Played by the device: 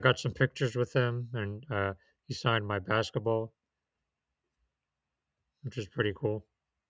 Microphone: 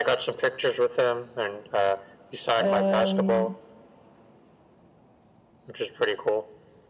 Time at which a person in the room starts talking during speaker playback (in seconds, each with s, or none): 2.6 s